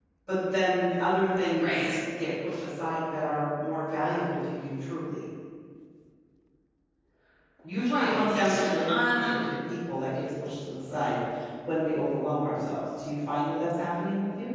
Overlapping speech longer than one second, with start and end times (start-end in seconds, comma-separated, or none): 7.8-9.3